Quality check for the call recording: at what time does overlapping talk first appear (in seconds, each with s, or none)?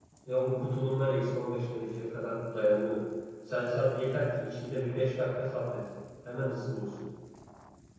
none